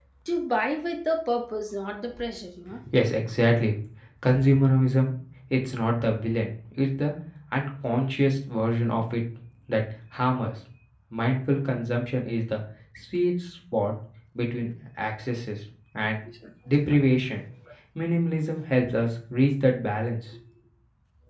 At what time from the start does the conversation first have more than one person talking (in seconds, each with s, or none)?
none